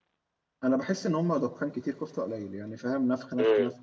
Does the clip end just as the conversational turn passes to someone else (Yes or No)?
No